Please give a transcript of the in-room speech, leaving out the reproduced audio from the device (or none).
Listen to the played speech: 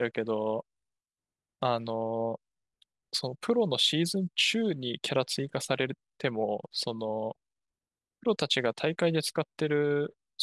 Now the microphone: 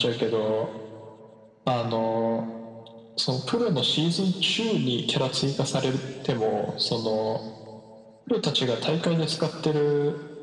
none